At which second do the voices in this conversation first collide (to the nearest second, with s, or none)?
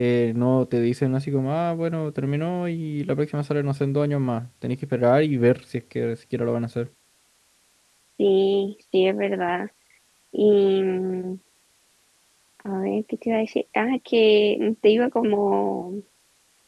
none